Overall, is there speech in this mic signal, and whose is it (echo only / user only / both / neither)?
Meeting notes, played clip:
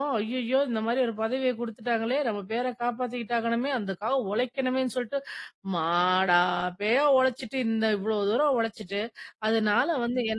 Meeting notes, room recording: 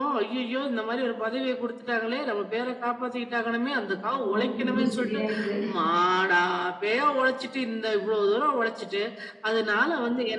both